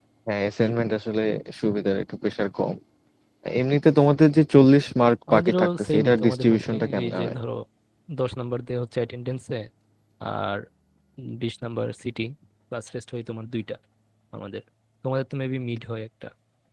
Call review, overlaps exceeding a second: present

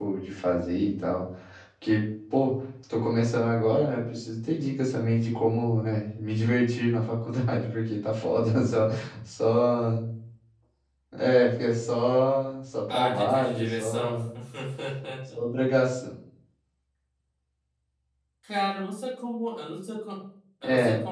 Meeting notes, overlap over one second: present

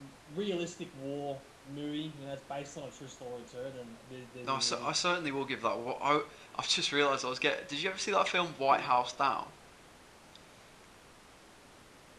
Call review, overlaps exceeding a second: none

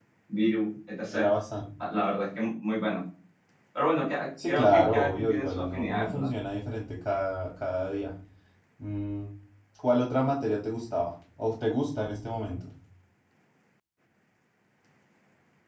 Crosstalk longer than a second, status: present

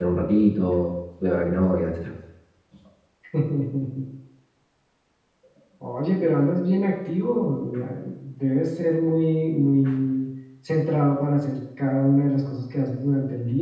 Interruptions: none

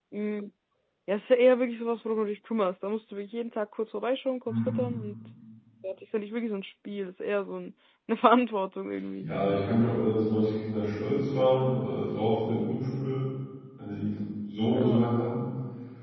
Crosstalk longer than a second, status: none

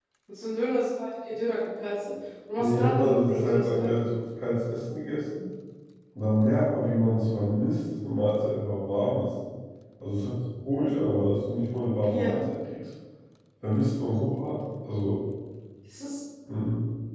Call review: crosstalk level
present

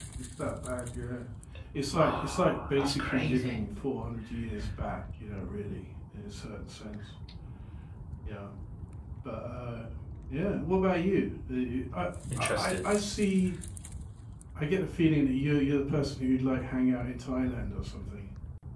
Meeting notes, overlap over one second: present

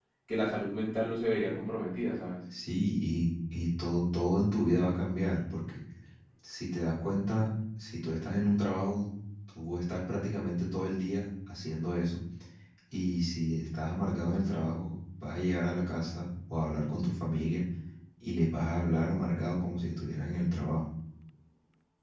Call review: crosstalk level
none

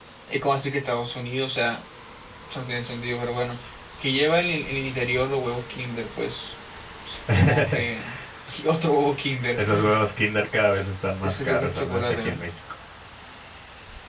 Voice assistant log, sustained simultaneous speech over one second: present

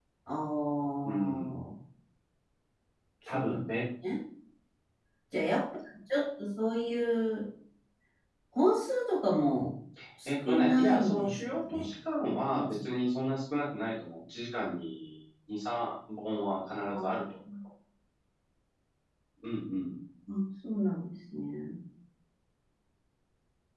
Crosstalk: present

